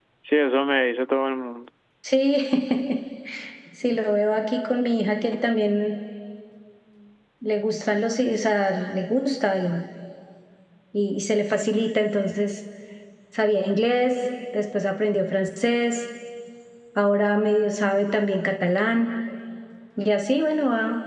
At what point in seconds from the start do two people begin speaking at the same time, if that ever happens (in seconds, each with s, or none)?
none